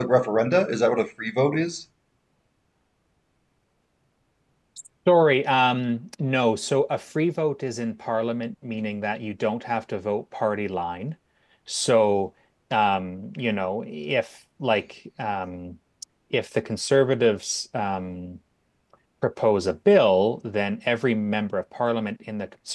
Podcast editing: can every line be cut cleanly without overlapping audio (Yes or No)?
Yes